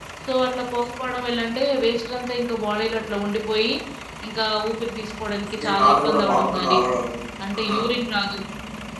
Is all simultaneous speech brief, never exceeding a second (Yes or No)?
No